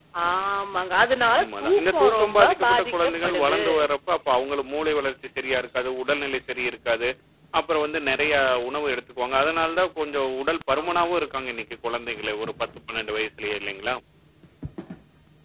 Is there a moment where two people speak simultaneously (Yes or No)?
Yes